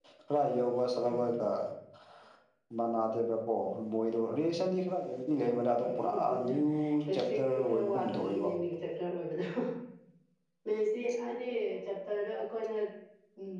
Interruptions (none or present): present